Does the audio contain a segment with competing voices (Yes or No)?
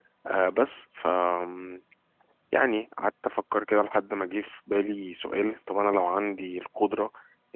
No